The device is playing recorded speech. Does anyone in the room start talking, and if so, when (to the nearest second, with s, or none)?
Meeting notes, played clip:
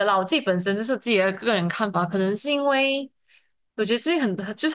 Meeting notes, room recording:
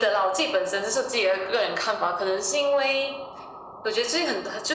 none